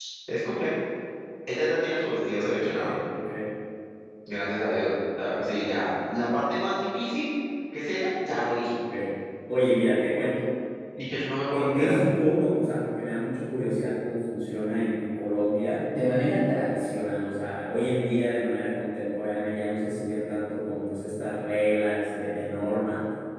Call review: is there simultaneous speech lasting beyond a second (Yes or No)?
No